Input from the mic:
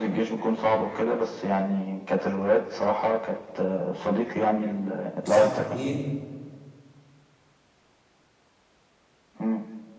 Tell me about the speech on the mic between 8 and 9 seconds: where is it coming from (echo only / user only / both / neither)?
neither